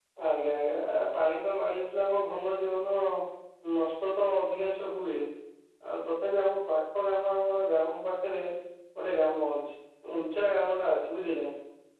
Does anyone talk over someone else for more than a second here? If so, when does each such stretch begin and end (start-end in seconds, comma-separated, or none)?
none